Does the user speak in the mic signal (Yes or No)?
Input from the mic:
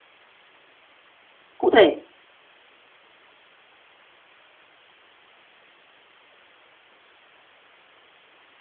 Yes